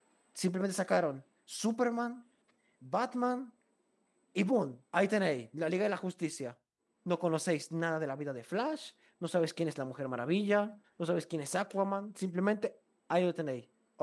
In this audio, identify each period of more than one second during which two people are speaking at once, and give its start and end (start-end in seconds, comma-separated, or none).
none